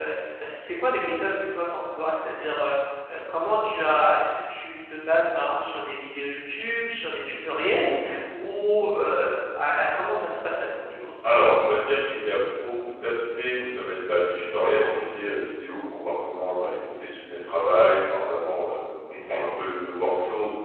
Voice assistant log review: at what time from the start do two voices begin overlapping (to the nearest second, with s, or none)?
none